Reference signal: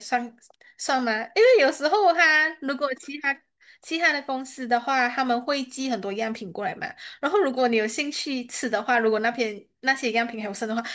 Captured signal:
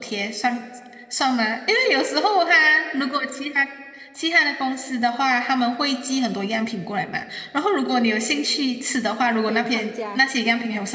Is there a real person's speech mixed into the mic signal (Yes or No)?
Yes